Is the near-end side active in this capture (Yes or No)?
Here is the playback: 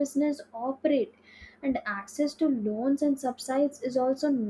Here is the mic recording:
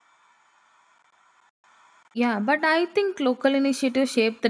Yes